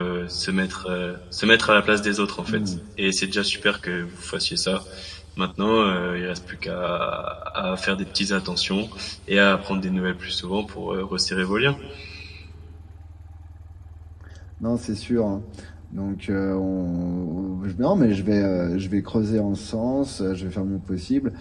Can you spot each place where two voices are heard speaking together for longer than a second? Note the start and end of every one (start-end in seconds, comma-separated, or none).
none